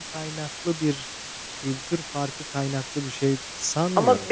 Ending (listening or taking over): taking over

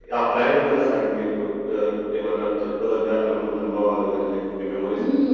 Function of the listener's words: taking over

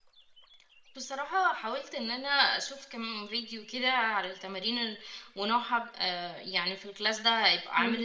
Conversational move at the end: listening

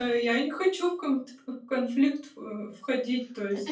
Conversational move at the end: taking over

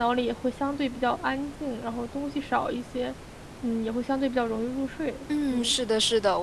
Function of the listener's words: taking over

